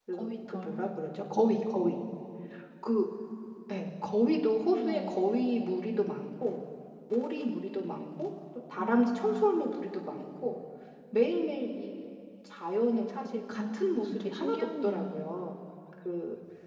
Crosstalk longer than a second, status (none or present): present